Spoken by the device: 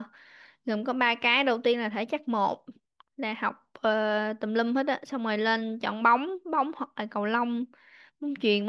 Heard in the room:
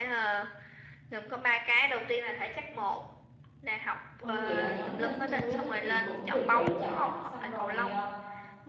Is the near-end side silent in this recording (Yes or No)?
No